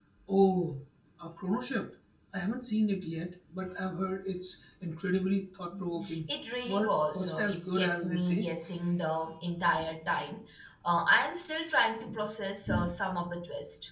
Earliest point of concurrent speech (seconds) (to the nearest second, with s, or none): 7 s